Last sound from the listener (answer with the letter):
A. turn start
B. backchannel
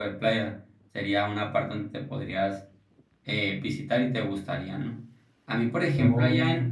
B